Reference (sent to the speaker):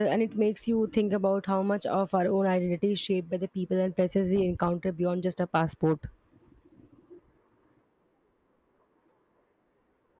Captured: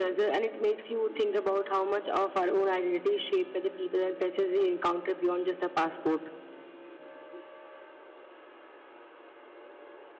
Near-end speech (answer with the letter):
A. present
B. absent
B